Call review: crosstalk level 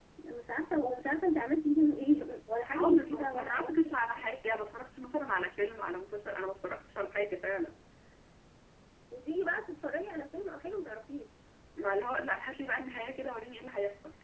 present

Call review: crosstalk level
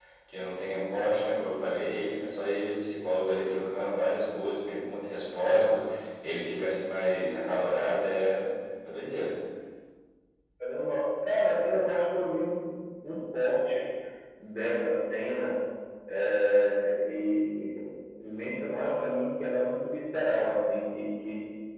none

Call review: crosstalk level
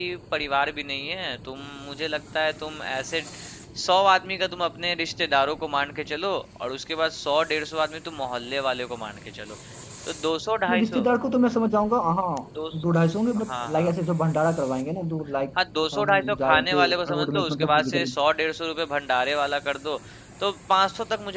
present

